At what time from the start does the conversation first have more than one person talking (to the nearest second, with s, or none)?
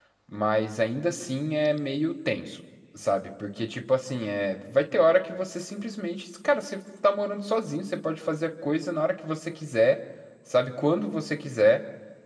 none